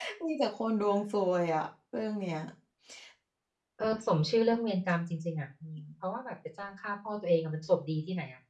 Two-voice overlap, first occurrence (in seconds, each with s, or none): none